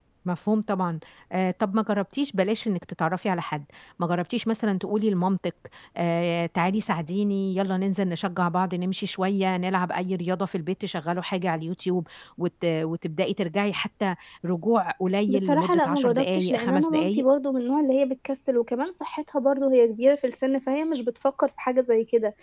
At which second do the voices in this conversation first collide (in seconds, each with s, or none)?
15.3 s